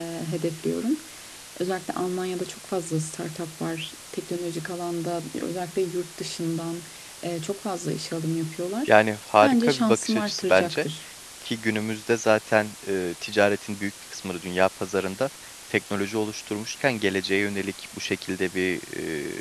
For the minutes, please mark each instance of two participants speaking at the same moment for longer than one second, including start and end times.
9.4-10.8

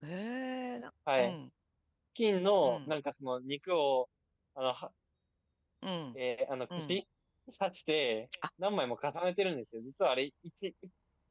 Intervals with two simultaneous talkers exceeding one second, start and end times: none

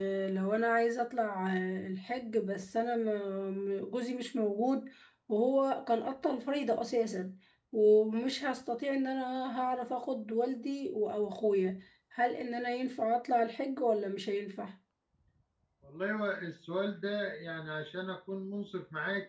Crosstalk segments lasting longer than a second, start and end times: none

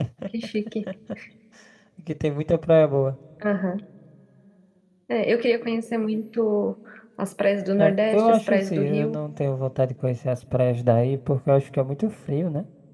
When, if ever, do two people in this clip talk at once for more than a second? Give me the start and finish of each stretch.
7.8-9.2

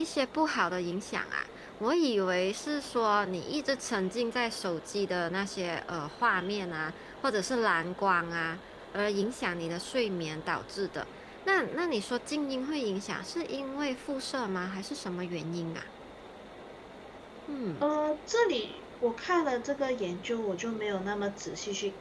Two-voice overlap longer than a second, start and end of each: none

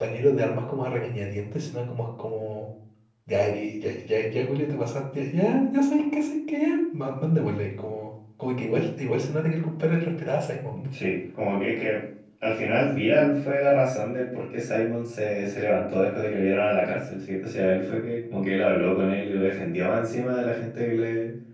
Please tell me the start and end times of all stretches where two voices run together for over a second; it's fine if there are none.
none

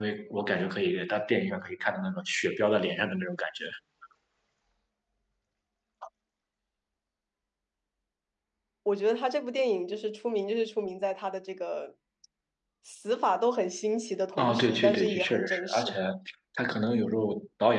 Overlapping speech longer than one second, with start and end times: 14.4-15.9

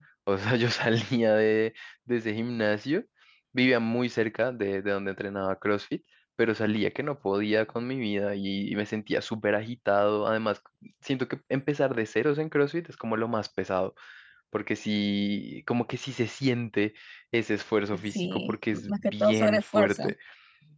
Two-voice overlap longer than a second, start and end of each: 18.1-20.1

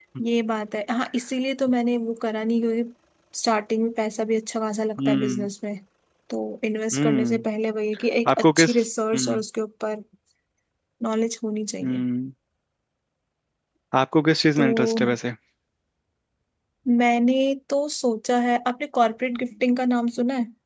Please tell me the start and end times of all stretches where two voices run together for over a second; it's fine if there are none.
none

